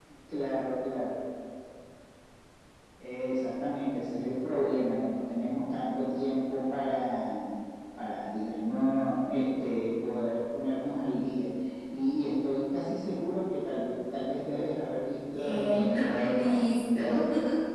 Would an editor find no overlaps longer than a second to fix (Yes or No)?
No